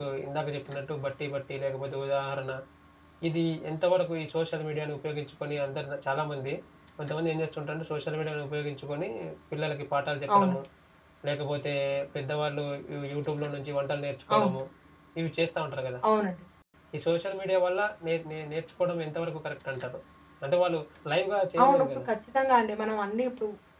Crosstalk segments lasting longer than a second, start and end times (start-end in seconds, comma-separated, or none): none